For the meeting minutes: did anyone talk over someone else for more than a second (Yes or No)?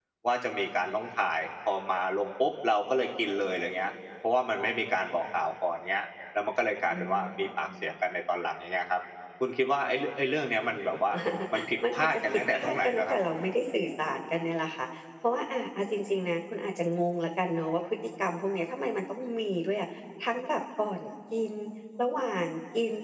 Yes